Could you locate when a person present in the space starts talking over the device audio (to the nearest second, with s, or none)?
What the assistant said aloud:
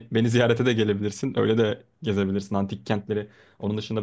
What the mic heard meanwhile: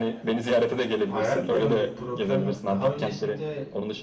1 s